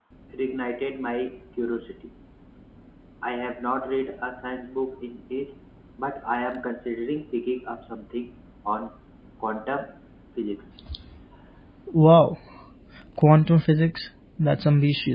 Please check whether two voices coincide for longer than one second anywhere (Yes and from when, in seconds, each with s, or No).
No